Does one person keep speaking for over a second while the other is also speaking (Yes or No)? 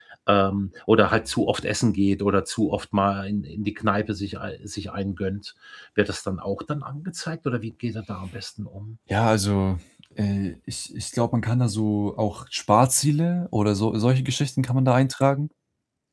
No